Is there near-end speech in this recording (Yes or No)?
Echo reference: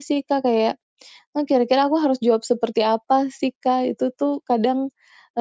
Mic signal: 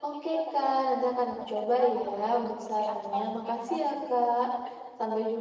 Yes